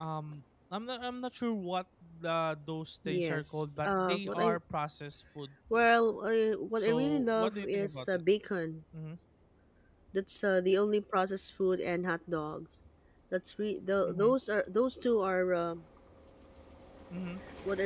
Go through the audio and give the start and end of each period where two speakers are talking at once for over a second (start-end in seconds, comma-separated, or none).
3.1-4.6, 6.8-8.1